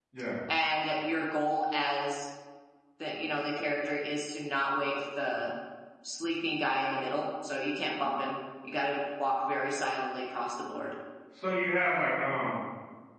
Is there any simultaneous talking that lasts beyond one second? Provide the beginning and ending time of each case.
none

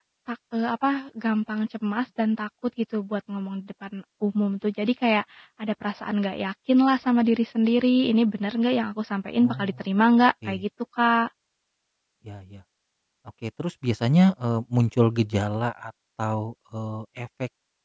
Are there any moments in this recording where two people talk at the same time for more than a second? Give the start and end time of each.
none

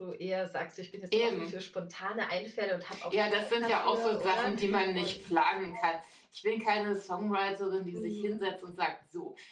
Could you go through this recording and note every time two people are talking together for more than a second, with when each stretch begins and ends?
3.1-4.5

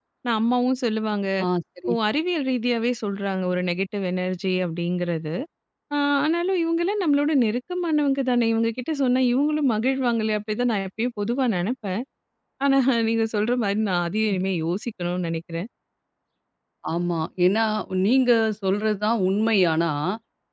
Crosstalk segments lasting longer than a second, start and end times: none

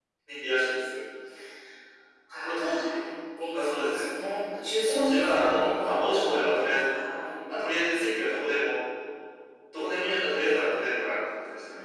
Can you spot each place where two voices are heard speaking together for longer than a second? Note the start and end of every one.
4.8-6.8

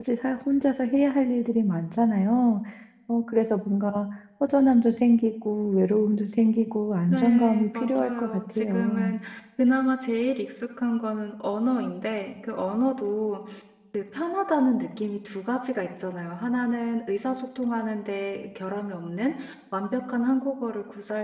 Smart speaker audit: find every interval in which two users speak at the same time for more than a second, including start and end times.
7.1-9.2

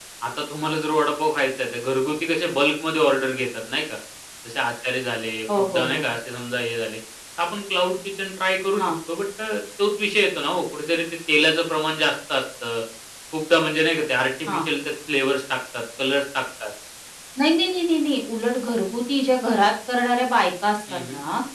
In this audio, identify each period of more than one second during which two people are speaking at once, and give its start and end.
none

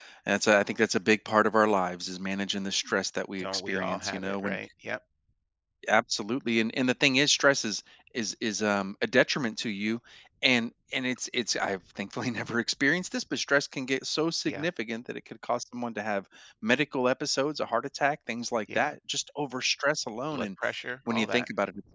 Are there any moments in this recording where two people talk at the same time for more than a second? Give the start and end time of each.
3.4-4.6

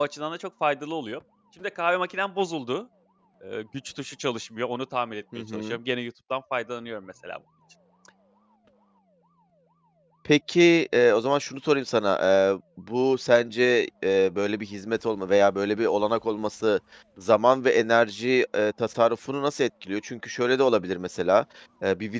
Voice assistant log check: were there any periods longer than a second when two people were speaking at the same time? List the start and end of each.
none

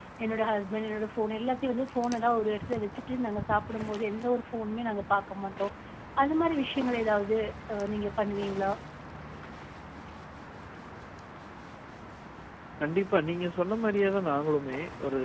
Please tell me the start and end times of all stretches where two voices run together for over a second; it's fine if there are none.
none

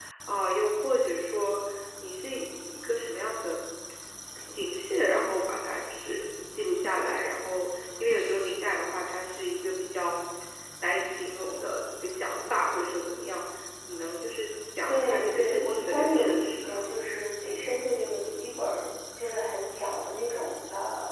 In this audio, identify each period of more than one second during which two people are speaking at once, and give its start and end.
14.9-17.0

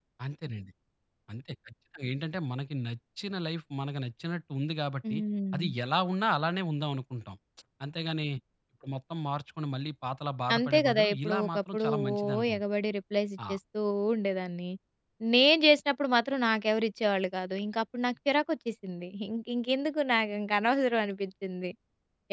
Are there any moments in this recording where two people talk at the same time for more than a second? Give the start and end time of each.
10.6-12.6

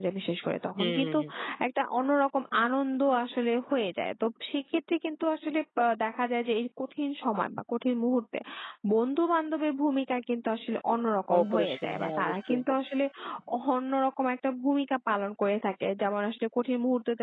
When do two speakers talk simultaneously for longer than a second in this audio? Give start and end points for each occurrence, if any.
11.4-12.6

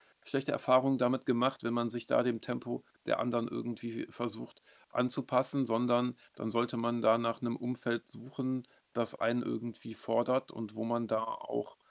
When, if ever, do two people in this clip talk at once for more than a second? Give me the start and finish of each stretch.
none

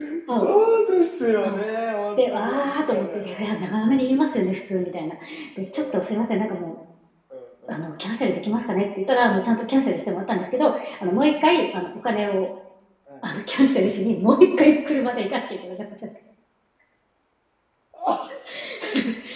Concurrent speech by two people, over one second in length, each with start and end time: 2.2-3.5

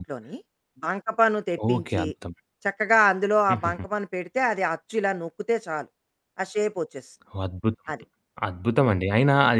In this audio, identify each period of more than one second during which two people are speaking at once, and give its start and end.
none

